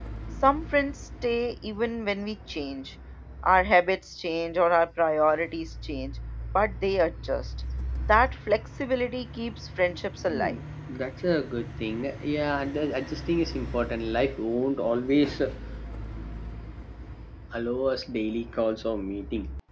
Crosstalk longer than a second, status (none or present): none